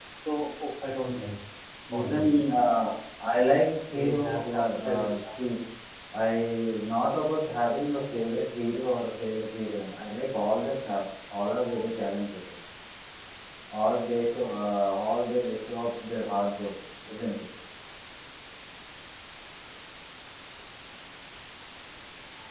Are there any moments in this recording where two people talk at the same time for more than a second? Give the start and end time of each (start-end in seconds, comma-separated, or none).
3.9-5.2